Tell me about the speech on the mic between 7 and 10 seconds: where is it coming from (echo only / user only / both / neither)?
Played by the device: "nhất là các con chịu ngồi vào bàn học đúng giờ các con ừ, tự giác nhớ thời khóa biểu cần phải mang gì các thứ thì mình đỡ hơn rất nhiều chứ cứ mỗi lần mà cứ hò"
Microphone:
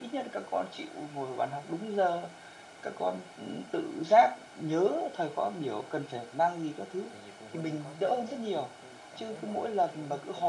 both